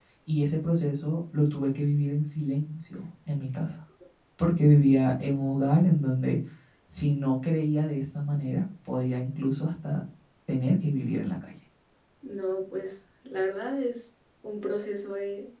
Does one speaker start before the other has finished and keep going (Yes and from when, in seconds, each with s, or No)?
No